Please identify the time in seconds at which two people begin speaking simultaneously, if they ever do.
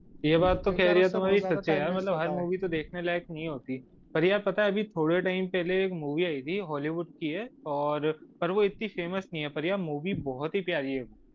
0.7 s

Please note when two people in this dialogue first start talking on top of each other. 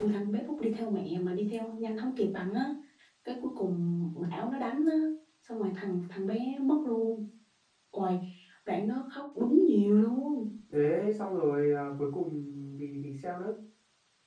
none

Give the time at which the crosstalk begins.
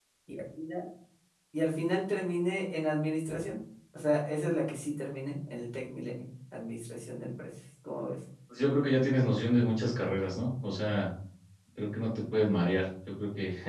none

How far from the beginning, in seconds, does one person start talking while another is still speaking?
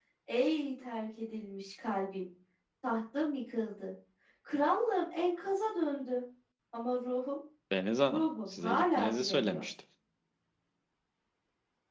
8.1 s

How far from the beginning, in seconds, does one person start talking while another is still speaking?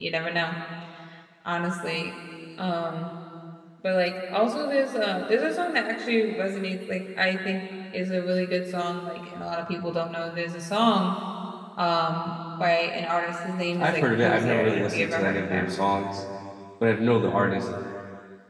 13.8 s

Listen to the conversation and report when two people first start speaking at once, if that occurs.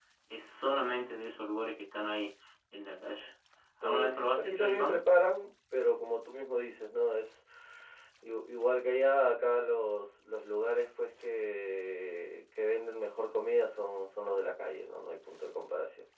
3.8 s

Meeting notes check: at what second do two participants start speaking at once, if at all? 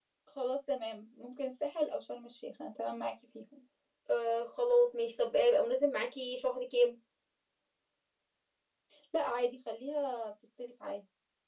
none

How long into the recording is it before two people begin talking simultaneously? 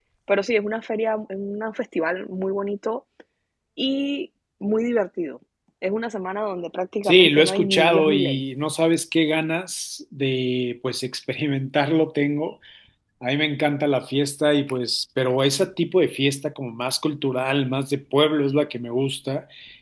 7.0 s

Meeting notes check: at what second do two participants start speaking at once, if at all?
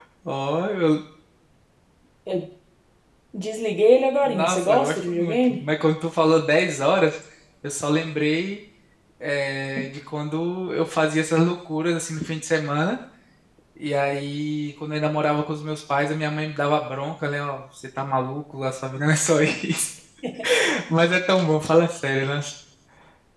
4.2 s

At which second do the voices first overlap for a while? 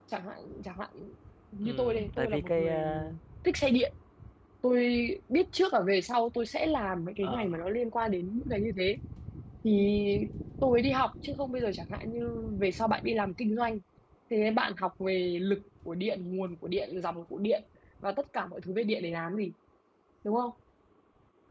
1.6 s

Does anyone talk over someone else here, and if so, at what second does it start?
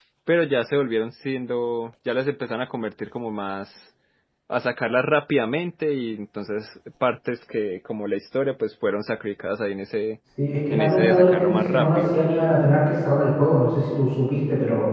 10.7 s

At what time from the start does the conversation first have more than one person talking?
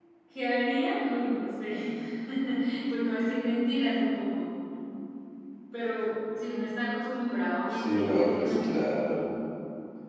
7.8 s

